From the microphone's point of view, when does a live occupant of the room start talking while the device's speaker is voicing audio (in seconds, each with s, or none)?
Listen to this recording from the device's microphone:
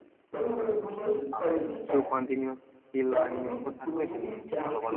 1.4 s